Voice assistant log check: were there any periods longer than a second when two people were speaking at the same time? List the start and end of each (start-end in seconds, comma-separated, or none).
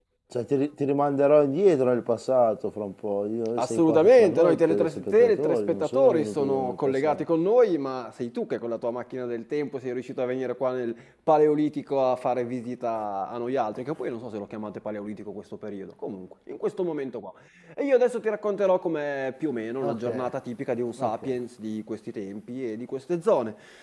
3.6-7.2